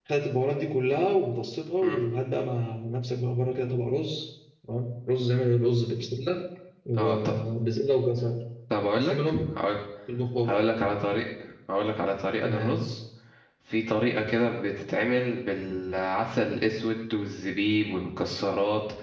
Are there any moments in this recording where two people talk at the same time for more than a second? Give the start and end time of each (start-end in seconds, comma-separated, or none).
none